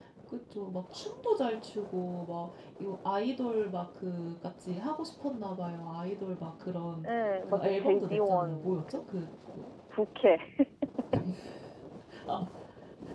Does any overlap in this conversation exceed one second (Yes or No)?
Yes